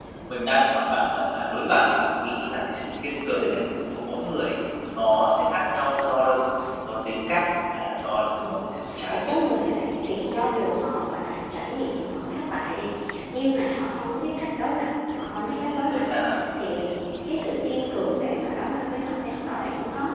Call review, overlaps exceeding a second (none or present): none